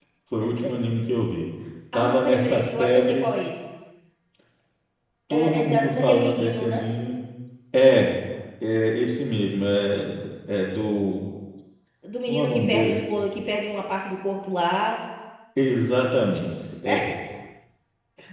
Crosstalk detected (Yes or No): Yes